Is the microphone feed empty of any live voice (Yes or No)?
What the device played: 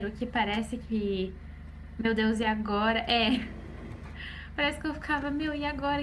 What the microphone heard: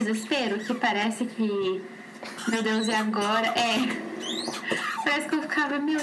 Yes